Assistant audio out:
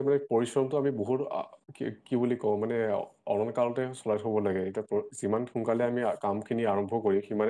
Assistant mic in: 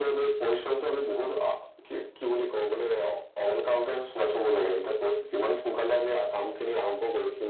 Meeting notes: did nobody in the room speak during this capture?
Yes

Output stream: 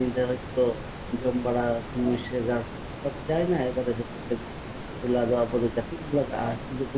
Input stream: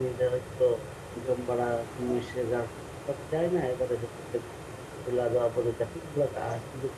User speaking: No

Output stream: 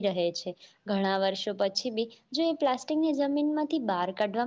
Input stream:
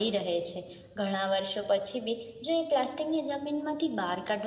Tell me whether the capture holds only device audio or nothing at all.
Yes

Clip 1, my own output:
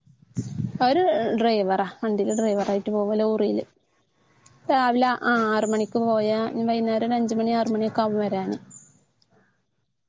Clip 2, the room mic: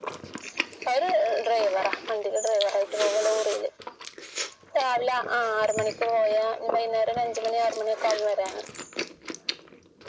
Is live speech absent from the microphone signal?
Yes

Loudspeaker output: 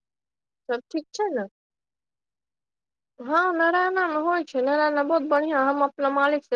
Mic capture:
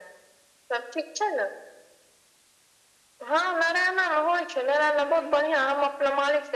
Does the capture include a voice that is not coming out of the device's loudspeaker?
No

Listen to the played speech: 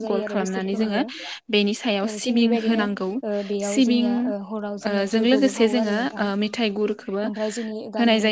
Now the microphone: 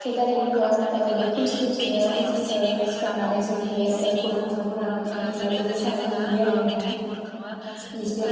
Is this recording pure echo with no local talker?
No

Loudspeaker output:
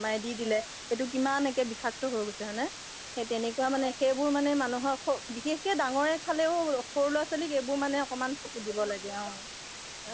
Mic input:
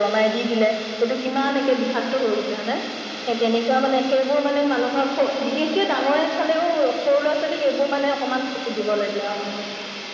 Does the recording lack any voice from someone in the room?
Yes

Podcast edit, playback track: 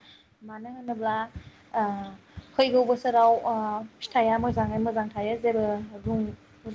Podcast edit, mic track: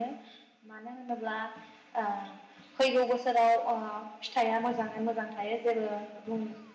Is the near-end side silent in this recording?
Yes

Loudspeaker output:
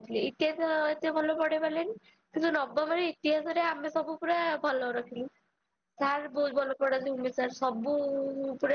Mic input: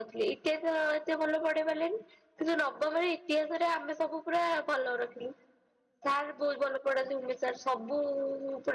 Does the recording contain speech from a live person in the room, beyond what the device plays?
No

